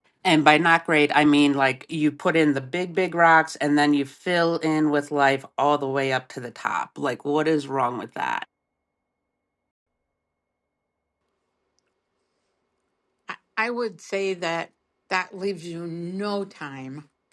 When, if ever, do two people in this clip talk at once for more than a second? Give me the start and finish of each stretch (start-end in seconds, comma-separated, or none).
none